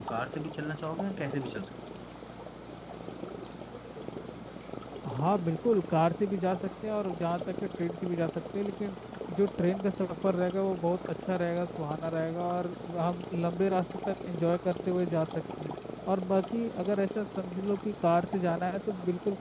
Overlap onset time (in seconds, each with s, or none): none